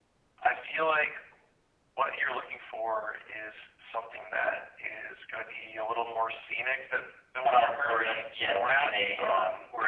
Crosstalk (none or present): present